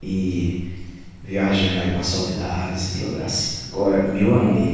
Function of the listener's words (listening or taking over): listening